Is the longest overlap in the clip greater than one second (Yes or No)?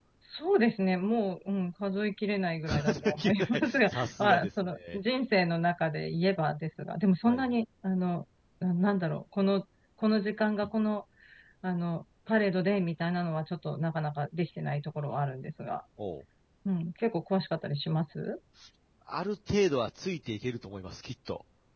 Yes